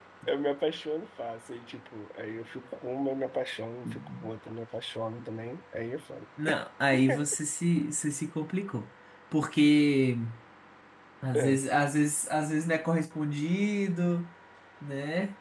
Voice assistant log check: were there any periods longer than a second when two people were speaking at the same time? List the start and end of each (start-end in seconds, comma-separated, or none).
none